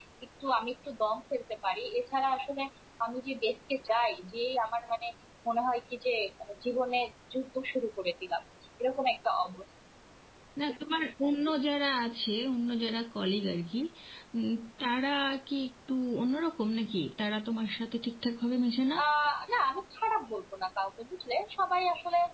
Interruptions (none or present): none